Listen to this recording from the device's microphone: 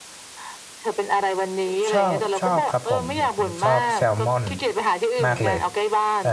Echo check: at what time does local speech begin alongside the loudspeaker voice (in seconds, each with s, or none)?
1.9 s